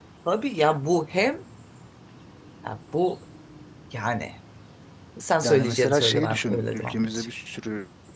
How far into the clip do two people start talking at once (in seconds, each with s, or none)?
5.4 s